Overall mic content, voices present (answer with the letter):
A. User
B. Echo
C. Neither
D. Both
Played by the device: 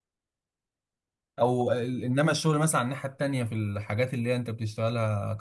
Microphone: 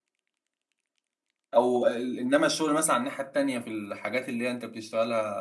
B